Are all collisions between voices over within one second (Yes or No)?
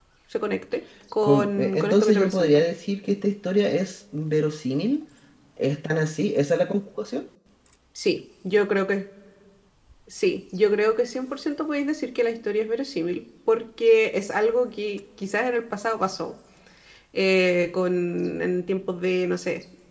No